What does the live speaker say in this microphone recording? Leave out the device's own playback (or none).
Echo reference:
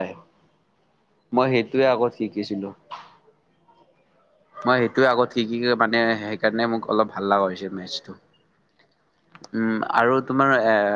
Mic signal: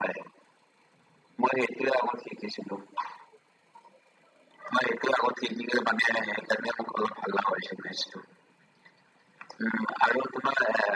none